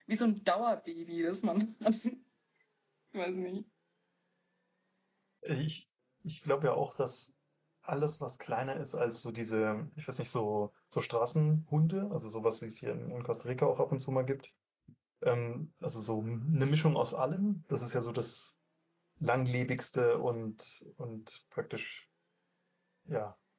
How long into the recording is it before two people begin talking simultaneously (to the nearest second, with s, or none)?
none